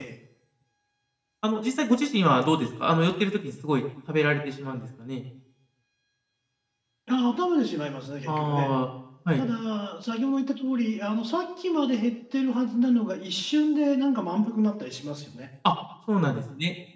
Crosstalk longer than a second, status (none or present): none